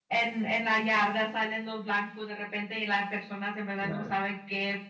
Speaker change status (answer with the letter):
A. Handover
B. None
B